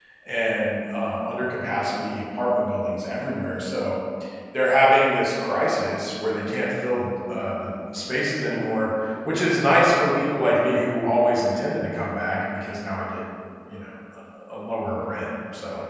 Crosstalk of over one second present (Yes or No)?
No